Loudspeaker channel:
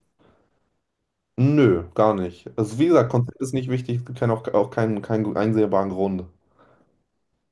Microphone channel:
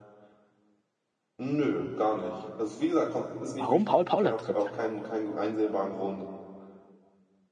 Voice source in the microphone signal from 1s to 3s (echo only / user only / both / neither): echo only